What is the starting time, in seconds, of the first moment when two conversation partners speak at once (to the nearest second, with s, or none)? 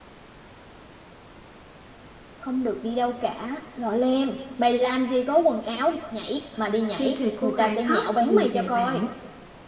7 s